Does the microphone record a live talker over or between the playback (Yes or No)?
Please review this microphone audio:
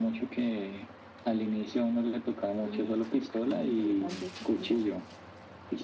No